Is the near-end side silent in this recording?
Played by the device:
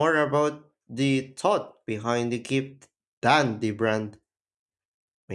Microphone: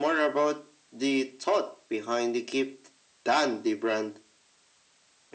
Yes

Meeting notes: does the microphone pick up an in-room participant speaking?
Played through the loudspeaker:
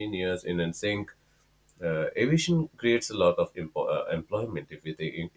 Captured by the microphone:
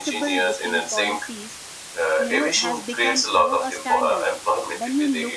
Yes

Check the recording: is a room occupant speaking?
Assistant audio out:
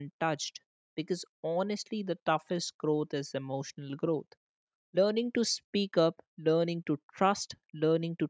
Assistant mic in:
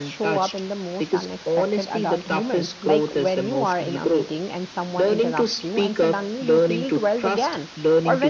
Yes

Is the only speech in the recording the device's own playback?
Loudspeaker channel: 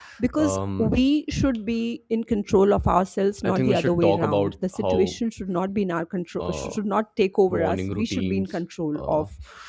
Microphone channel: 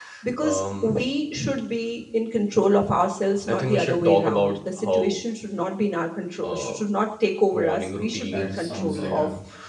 No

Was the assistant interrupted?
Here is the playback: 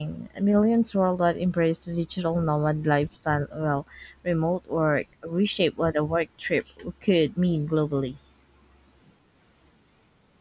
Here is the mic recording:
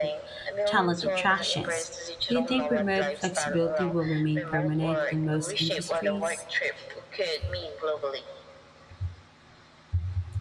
Yes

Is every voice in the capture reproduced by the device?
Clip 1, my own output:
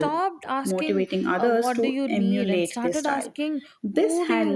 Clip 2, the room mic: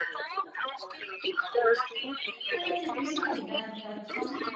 No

